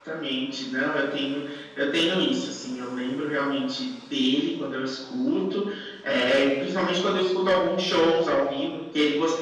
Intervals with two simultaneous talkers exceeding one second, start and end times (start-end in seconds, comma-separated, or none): none